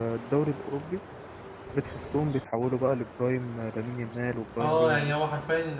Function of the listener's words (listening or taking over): taking over